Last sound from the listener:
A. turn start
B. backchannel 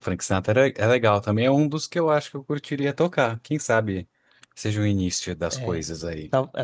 A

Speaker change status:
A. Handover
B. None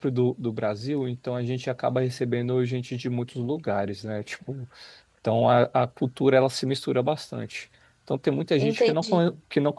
B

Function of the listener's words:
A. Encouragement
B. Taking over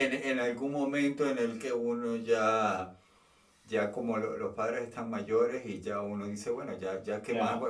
A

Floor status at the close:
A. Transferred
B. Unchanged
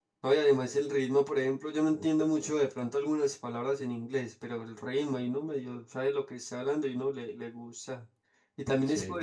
B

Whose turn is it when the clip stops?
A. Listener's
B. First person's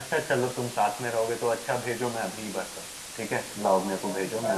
A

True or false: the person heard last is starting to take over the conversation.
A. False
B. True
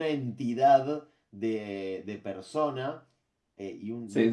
A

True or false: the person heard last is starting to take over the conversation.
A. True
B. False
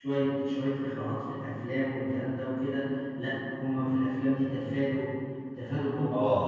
A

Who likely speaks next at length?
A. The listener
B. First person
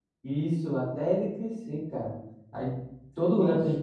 B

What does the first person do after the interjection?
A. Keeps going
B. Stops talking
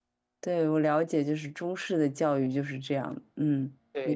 B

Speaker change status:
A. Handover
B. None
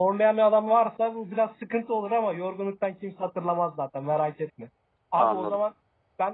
B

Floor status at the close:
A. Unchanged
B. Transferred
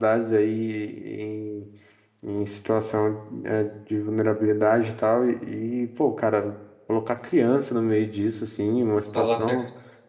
A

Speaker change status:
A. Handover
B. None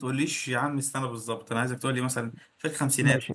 A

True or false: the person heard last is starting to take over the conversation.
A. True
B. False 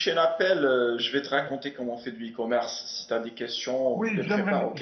A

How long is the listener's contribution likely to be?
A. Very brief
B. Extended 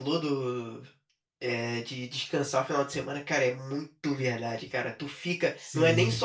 A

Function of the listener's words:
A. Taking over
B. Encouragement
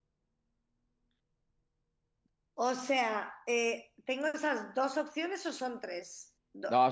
A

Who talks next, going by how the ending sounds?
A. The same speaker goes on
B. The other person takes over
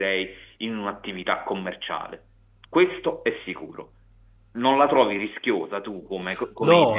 B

